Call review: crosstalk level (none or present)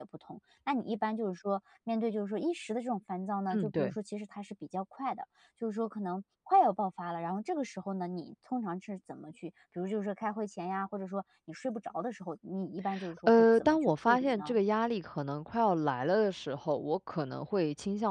present